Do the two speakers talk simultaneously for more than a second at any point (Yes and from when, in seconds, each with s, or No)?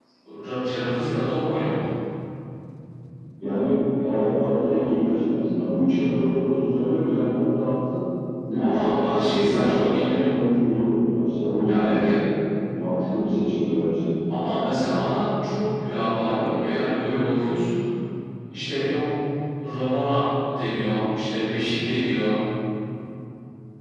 Yes, from 8.6 s